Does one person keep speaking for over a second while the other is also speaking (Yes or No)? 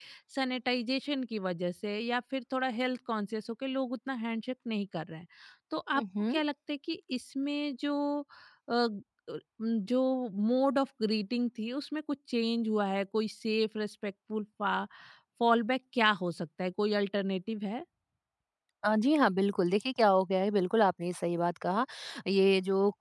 No